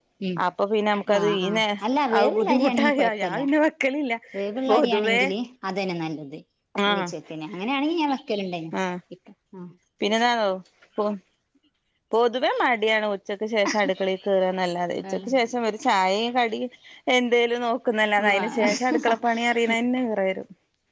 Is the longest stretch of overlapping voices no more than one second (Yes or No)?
No